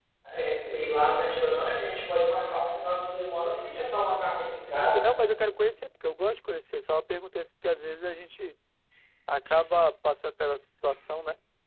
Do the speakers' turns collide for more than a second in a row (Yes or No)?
No